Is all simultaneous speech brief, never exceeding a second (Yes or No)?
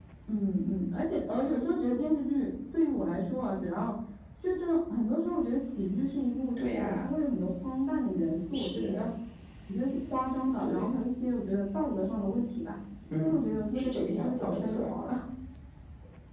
No